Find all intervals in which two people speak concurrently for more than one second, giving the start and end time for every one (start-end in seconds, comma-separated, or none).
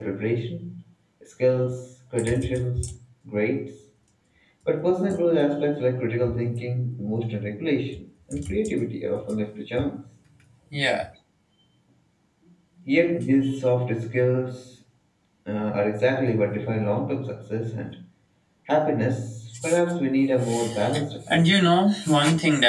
none